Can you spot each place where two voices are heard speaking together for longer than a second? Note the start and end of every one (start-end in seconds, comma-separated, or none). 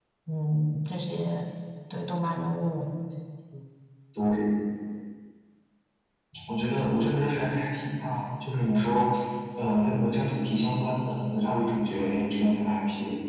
none